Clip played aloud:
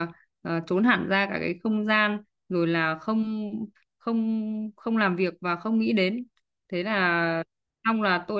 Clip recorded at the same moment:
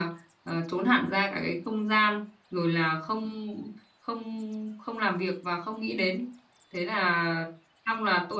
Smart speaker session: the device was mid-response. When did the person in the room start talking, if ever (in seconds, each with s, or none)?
none